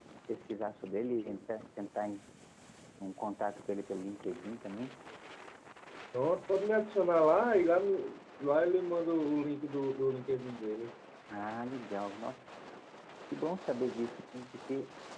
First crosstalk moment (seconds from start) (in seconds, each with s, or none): none